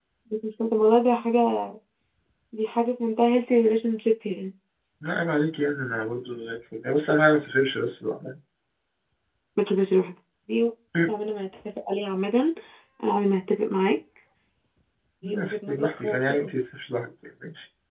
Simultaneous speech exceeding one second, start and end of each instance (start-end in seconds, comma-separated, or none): 15.2-16.4